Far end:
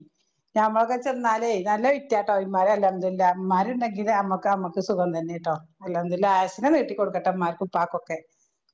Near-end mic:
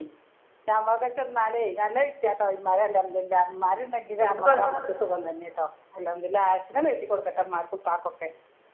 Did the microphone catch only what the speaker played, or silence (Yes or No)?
No